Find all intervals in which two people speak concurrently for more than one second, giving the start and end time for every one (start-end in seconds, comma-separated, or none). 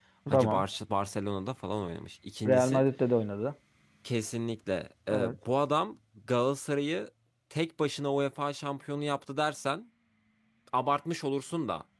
none